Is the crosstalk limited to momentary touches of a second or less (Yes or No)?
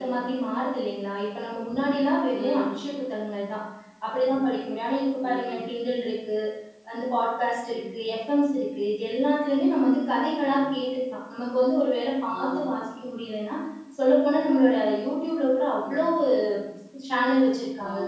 Yes